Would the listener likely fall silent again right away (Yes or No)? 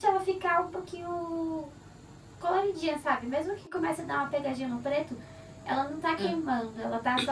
Yes